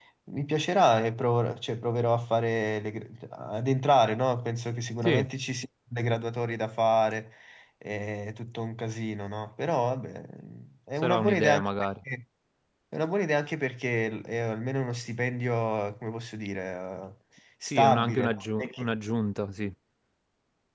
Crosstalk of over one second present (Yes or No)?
Yes